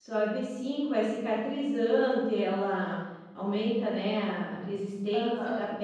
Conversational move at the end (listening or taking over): listening